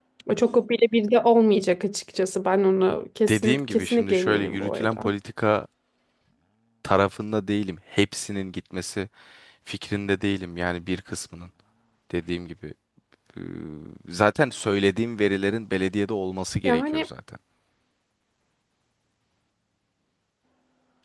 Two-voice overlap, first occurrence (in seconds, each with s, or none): 3.3 s